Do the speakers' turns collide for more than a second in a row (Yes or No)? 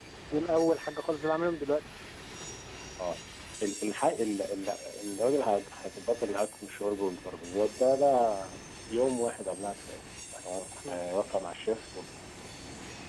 No